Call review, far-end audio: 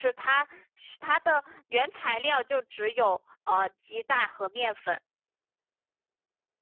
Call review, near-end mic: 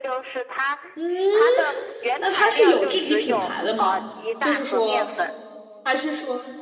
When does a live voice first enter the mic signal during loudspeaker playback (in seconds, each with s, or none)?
0.9 s